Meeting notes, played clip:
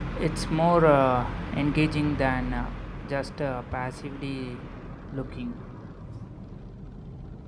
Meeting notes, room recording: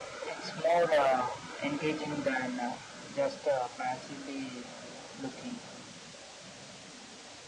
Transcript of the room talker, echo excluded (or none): none